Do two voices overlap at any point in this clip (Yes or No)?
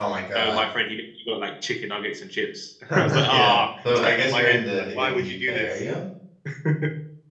Yes